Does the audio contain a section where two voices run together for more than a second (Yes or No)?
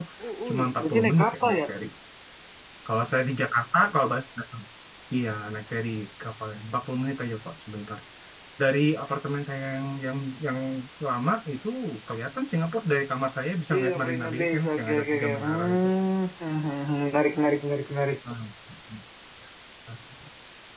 Yes